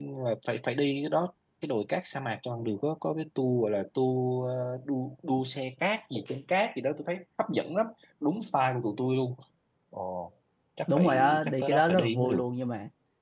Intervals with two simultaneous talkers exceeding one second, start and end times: 10.9-12.4

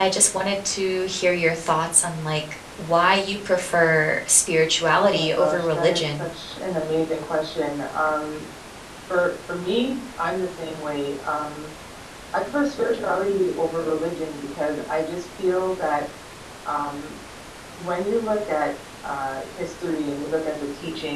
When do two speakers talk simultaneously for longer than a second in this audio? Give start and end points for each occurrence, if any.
5.0-6.3

